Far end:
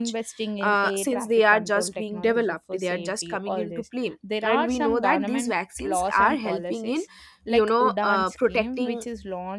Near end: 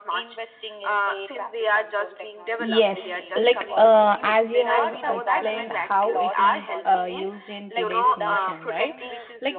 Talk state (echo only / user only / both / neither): both